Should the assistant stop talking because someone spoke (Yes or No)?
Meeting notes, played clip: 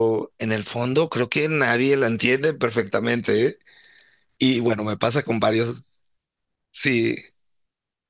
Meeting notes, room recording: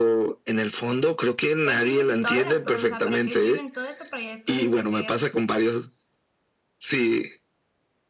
Yes